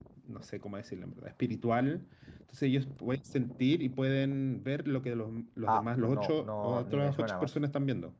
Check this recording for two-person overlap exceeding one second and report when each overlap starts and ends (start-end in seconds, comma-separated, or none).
5.7-7.5